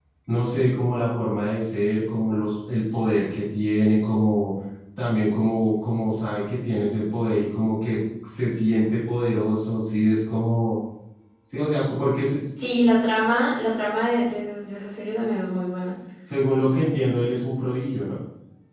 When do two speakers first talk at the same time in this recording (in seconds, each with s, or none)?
none